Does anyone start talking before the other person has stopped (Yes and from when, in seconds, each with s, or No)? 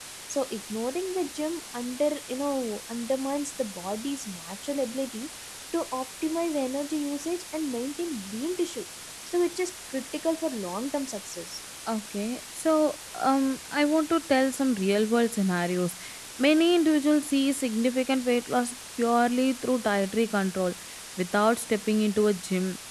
No